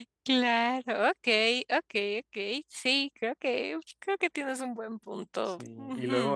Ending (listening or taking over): taking over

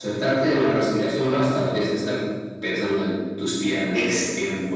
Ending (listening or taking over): taking over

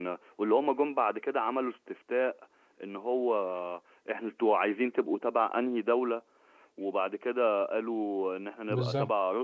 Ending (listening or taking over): listening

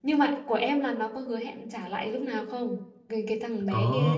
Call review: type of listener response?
taking over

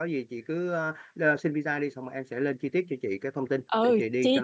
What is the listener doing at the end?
taking over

